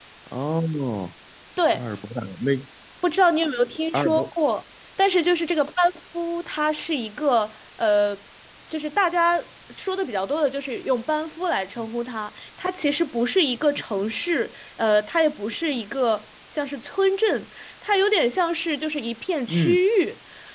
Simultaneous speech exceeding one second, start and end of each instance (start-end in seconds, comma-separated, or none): none